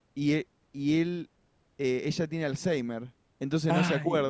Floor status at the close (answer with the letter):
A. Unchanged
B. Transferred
A